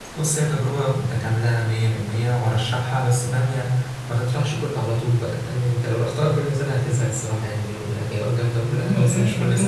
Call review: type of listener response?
taking over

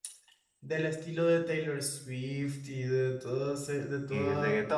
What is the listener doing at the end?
taking over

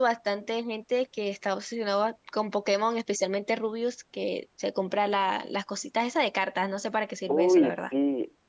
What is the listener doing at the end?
taking over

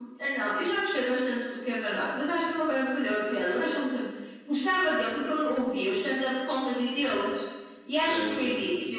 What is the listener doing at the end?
listening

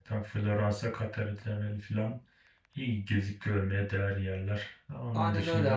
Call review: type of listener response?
taking over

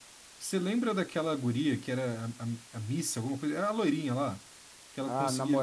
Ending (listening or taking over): taking over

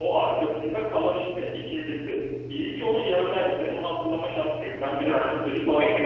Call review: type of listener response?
taking over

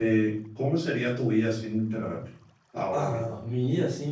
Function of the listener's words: taking over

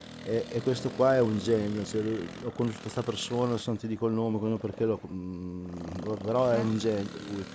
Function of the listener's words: listening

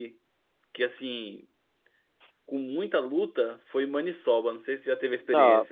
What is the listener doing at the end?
taking over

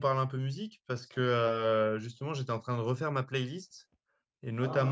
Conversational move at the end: listening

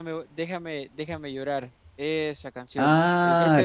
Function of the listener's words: taking over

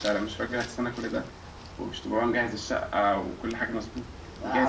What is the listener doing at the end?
taking over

